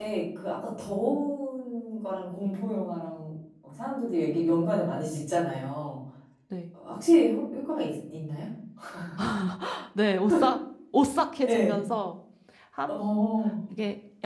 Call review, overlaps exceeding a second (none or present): none